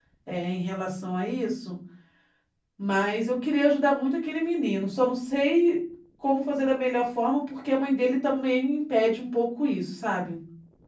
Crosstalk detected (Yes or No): No